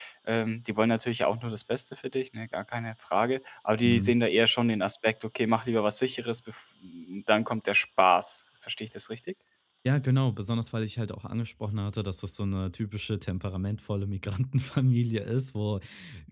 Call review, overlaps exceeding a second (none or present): none